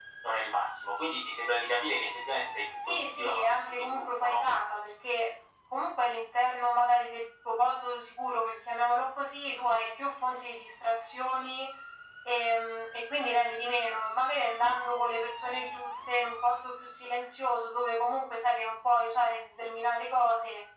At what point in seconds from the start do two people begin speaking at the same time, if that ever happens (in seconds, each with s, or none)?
2.9 s